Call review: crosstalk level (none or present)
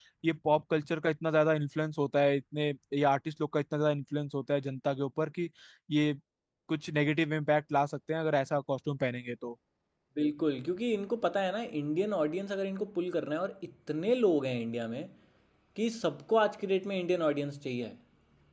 none